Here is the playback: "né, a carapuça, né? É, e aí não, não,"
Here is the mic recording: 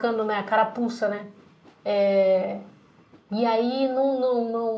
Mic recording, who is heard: echo only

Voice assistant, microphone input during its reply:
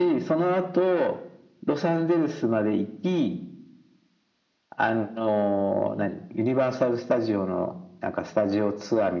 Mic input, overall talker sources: echo only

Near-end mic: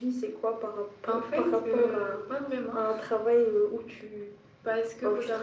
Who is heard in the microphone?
echo only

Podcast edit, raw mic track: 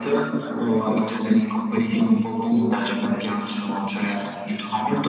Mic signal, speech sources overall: echo only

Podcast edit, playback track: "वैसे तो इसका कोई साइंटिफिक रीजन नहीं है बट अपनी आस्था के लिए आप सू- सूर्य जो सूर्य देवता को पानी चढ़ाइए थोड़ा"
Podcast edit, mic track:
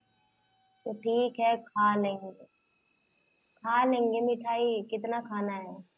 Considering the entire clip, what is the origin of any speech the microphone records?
user only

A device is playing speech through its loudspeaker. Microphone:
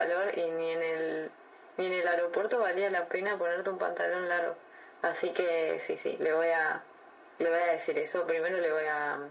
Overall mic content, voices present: echo only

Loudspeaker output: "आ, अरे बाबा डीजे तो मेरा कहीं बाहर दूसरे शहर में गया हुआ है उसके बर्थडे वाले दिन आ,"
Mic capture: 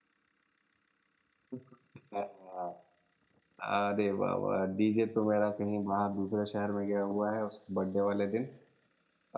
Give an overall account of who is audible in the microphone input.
echo only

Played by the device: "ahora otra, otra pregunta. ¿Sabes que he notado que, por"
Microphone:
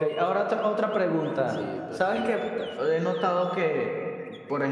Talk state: both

